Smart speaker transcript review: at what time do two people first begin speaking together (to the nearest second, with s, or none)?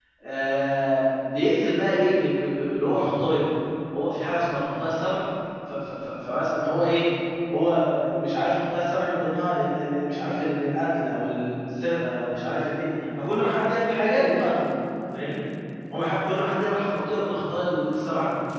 none